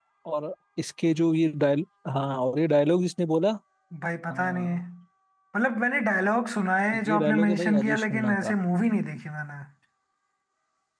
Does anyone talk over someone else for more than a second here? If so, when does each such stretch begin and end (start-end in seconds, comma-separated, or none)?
6.9-8.5